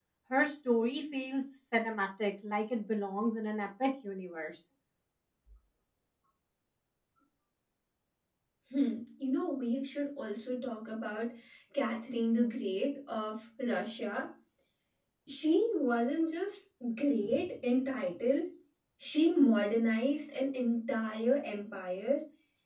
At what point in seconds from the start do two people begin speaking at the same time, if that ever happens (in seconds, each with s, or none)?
none